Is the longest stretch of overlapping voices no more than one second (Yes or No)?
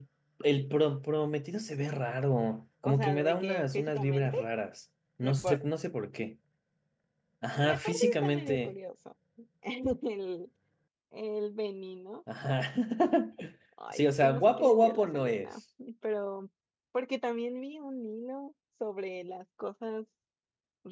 No